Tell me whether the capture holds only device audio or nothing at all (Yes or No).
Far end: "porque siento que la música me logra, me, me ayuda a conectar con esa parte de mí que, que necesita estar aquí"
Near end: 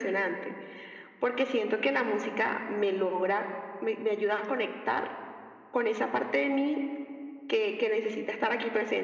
Yes